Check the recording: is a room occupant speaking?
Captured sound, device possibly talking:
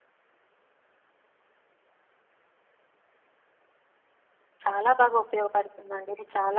Yes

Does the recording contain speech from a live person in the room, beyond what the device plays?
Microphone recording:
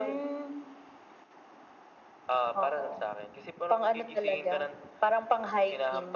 No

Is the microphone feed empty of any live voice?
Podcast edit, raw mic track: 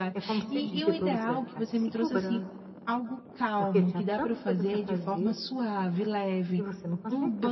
No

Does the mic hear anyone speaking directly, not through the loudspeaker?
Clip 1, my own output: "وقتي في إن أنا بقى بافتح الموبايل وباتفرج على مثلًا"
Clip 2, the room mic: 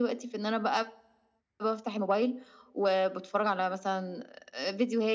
No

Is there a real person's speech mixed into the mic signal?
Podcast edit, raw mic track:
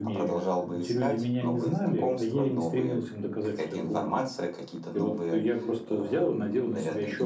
Yes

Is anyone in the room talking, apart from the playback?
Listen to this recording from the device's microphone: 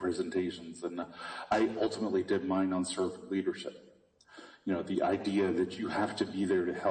No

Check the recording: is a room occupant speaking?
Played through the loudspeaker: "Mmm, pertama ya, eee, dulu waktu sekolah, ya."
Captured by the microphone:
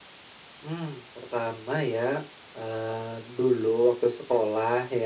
No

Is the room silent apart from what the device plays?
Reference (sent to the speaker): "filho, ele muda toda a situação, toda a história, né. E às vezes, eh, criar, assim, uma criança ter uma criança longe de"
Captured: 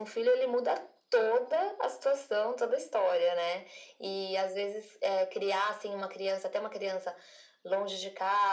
Yes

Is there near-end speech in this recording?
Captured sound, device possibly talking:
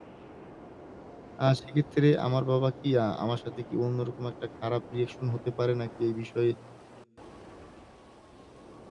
Yes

